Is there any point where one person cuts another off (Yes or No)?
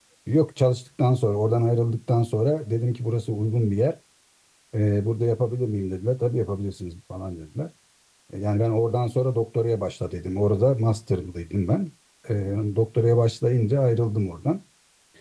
No